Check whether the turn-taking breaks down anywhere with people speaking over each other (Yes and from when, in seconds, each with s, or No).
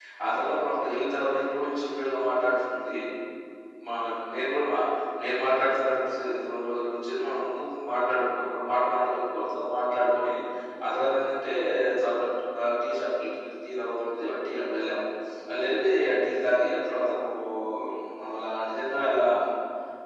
No